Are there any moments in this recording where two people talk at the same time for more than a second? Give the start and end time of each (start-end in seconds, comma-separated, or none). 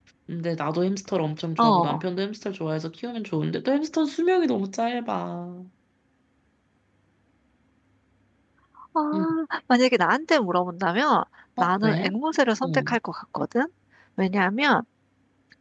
none